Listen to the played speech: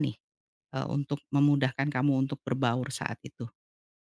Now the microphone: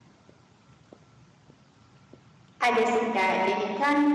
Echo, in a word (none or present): none